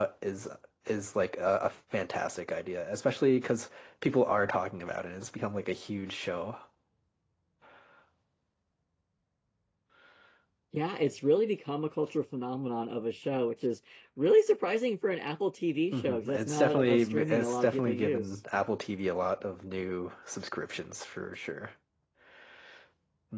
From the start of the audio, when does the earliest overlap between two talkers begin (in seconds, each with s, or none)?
15.9 s